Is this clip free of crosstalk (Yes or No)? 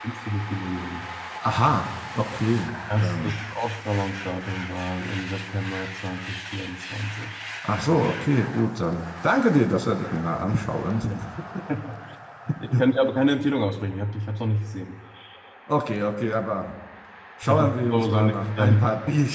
No